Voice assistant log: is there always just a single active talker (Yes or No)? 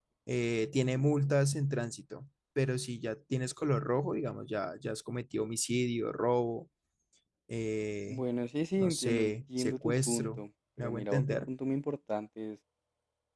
No